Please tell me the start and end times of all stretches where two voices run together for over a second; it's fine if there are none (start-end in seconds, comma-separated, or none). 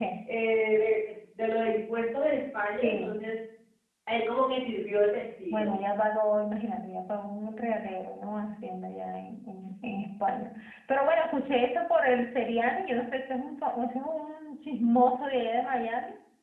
none